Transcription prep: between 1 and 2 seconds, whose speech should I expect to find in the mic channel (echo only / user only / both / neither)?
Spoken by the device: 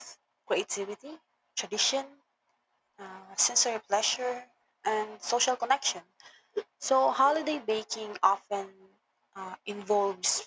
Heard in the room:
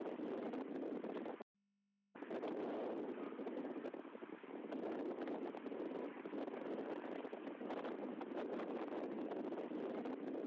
neither